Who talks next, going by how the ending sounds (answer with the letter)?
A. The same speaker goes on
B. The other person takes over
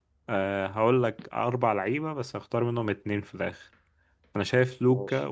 A